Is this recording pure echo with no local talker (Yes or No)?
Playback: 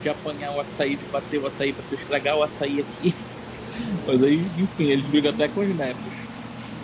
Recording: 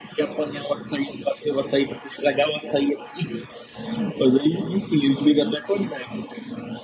Yes